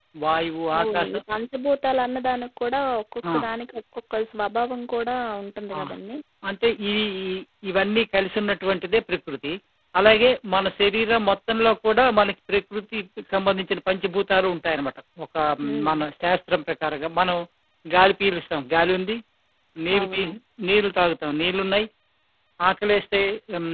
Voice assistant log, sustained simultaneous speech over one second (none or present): none